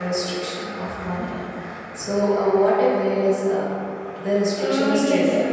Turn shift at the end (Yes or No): Yes